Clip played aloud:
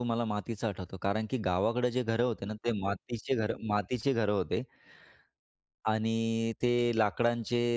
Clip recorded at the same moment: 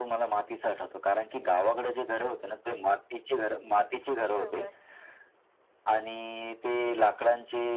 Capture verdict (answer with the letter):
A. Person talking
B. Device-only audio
A